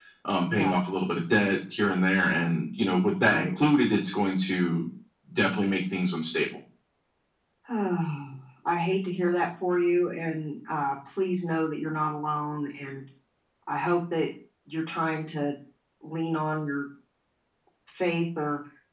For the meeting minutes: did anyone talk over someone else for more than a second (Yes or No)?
No